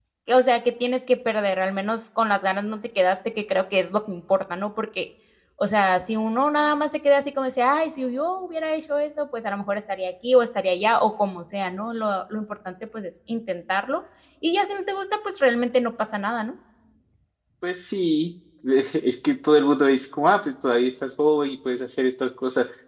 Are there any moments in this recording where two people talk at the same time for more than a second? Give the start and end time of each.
none

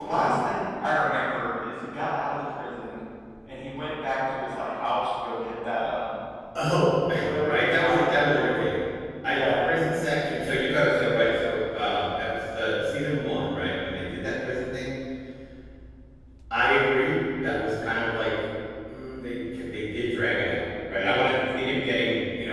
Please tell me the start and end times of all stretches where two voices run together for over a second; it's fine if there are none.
7.4-8.6

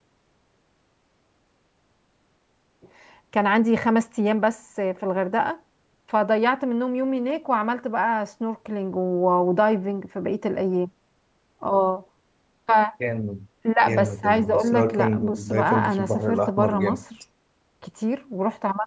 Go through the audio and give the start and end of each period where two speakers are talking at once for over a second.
13.9-17.0

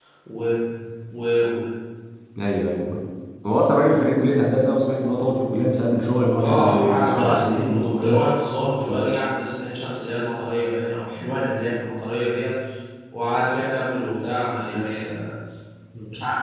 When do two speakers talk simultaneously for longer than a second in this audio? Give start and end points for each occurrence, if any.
6.4-8.2

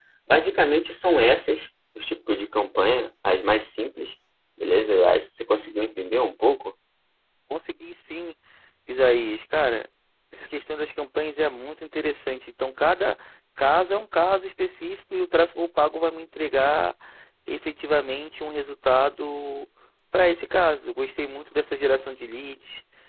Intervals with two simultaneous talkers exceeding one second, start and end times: none

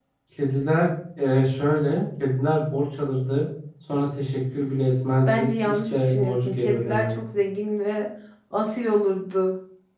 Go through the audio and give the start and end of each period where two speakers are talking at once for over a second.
5.3-7.2

